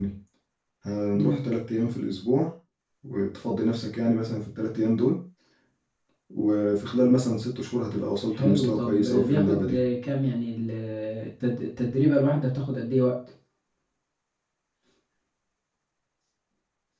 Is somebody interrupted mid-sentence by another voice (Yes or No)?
Yes